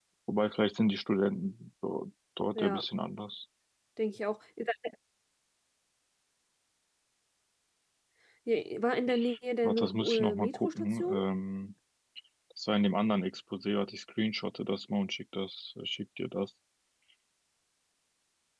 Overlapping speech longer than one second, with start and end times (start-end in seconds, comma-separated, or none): 9.6-11.2